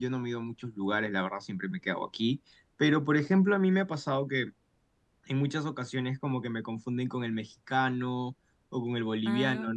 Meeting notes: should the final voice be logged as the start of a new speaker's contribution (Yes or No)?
No